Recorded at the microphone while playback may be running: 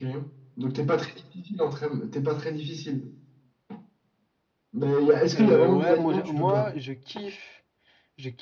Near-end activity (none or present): present